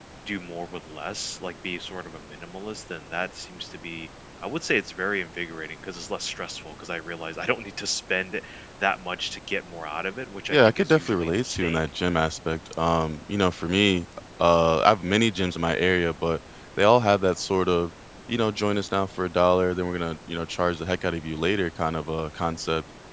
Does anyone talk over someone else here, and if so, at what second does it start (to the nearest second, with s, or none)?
11 s